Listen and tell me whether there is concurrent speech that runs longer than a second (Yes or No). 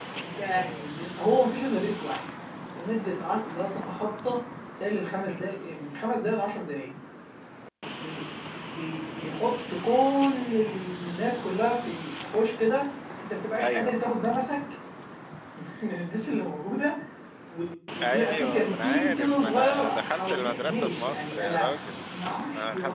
Yes